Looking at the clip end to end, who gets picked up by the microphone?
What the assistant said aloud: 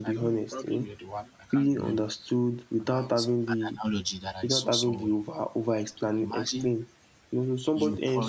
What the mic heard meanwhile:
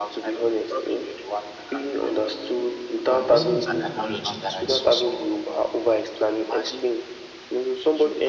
both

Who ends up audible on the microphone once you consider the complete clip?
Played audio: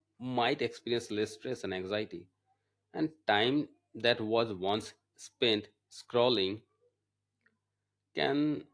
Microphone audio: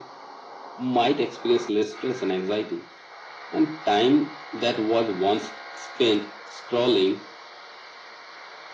echo only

